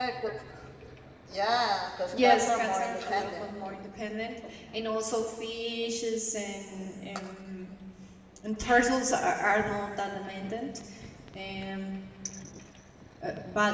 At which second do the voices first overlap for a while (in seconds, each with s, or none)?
2.1 s